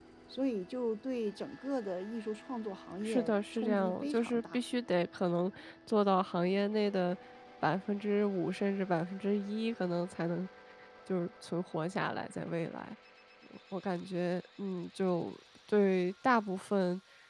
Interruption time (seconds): 3 s

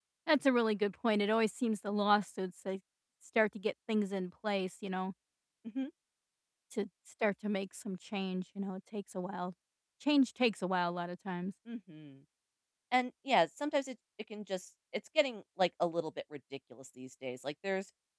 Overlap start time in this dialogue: none

